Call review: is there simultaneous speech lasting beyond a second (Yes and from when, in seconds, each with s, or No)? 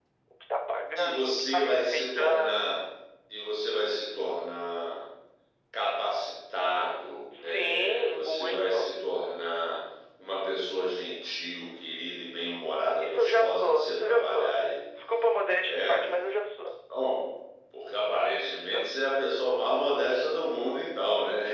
Yes, from 1.0 s